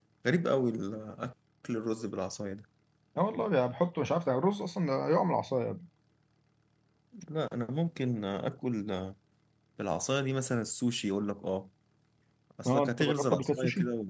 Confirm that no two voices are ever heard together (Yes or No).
No